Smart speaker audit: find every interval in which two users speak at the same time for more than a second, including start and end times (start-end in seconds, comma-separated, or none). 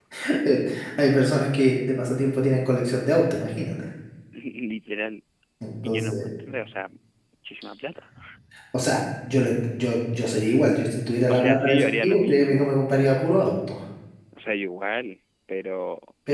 11.3-12.8